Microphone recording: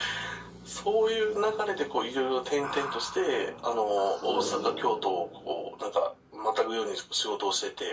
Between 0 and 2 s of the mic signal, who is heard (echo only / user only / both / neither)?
echo only